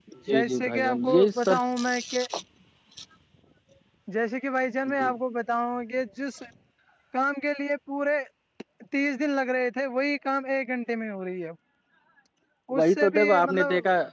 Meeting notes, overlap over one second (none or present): present